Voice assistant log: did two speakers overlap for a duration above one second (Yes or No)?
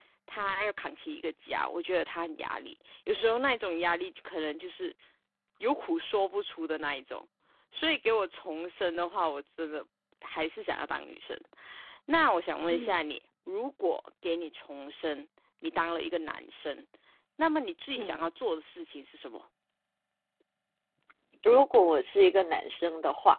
No